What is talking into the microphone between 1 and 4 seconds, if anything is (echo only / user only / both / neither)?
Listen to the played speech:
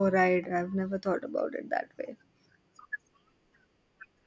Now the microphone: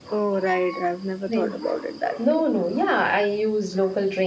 both